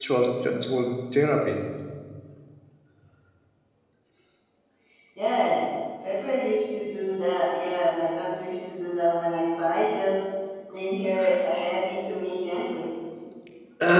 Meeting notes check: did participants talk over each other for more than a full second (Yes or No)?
No